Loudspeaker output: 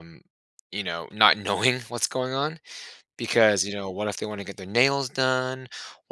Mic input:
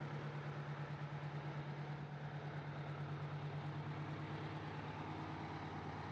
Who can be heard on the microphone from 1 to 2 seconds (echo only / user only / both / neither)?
neither